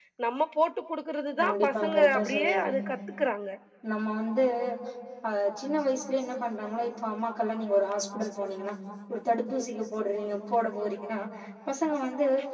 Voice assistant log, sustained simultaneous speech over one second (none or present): present